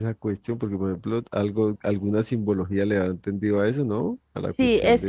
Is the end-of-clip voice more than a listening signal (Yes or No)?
Yes